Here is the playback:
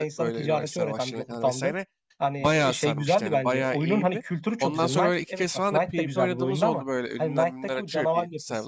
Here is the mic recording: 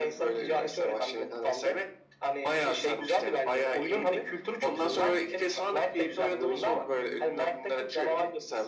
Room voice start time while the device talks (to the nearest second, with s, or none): none